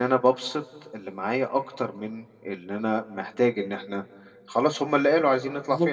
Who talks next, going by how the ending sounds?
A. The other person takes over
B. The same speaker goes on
A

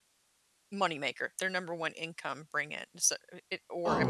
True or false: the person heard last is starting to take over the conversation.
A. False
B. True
B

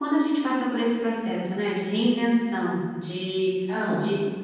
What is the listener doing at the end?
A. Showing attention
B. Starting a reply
A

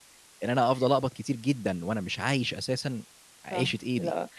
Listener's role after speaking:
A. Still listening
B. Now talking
B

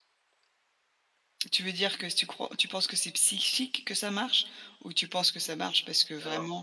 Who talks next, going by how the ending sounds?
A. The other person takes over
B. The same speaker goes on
B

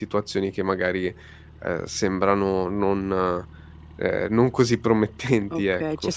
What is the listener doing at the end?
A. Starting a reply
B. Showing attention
A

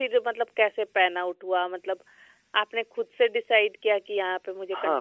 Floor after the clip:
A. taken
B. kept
A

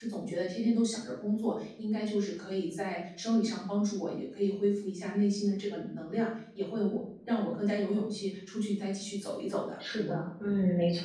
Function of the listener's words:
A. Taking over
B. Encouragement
A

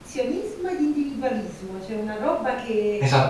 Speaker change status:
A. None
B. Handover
B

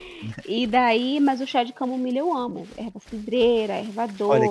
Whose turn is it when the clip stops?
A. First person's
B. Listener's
B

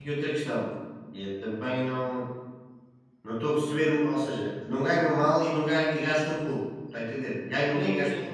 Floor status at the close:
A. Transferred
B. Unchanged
A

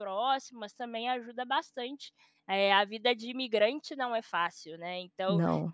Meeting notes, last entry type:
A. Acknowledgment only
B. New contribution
A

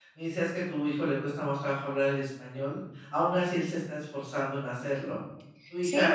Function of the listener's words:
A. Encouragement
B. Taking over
B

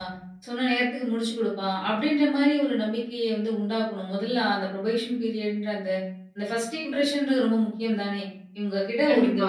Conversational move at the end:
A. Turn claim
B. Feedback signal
B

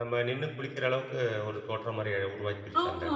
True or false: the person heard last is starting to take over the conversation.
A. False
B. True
B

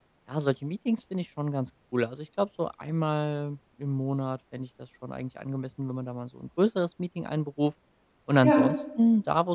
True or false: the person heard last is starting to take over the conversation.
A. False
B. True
A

